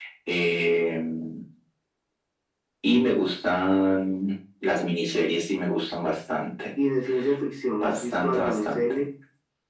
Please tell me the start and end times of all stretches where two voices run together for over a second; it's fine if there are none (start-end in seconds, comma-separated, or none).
7.8-9.0